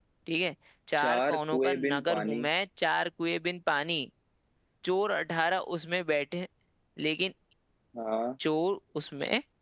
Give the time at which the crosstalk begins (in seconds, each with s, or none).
0.9 s